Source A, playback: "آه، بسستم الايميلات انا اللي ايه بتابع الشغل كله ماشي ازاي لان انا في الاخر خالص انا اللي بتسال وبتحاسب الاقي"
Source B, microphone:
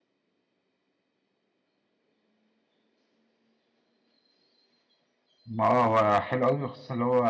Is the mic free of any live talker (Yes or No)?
No